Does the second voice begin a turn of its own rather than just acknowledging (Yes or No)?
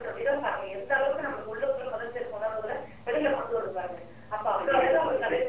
No